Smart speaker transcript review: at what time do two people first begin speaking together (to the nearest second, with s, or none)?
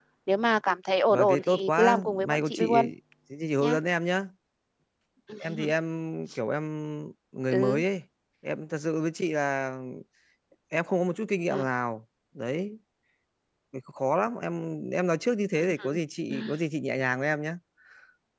1 s